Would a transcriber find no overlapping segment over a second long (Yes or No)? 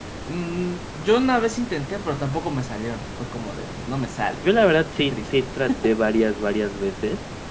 Yes